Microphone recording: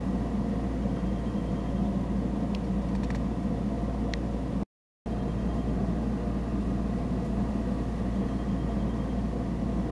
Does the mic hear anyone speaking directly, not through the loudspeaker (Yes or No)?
No